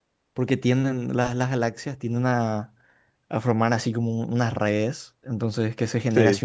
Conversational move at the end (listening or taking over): listening